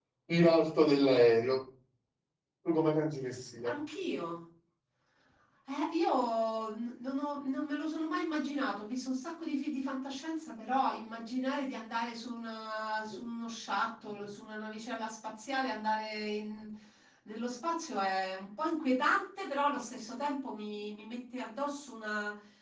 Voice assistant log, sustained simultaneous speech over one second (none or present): none